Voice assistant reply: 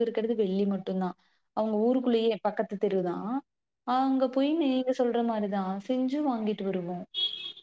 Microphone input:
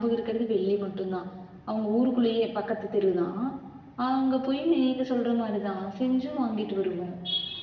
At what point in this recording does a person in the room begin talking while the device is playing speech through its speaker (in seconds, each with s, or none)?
none